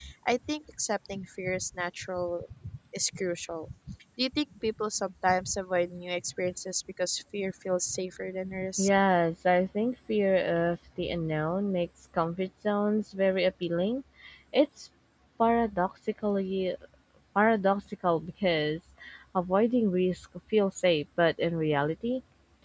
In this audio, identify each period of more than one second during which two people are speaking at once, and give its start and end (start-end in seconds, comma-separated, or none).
none